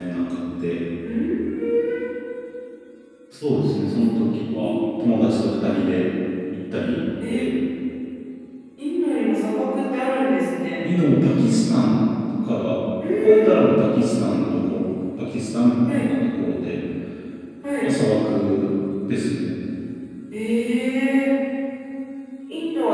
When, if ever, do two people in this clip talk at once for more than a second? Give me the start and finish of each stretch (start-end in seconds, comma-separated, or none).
none